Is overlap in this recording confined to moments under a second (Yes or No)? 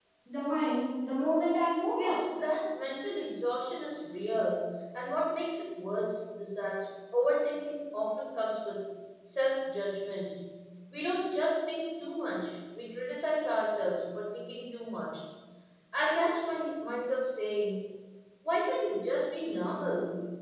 Yes